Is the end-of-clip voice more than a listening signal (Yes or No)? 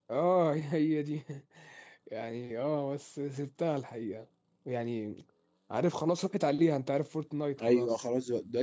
Yes